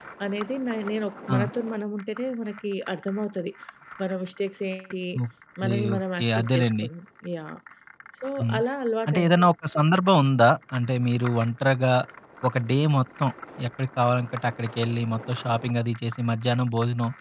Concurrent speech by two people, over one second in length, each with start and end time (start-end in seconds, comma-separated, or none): 5.6-6.8